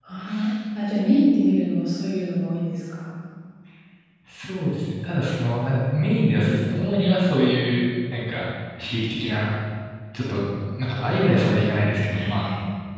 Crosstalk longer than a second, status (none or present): none